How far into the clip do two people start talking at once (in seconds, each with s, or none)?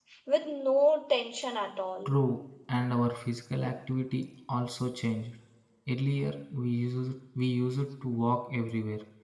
none